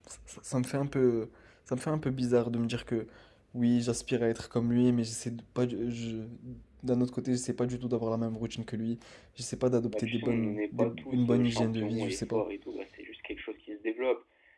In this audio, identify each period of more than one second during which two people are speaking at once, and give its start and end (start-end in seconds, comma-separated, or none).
9.9-12.4